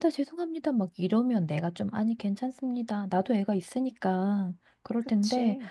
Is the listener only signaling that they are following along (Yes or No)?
Yes